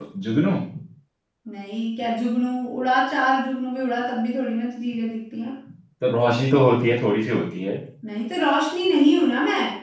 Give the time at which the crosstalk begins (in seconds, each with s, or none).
none